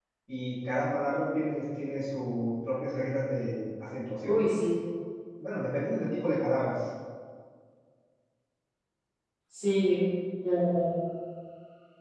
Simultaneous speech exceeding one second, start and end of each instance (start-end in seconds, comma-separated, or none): none